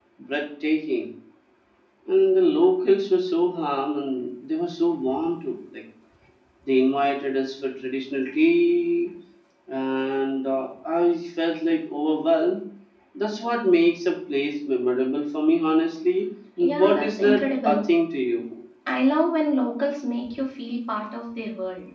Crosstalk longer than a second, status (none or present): present